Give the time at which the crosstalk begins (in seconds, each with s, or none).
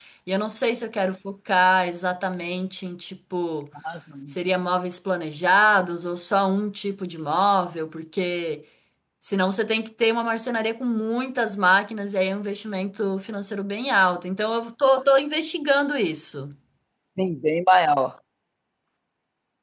none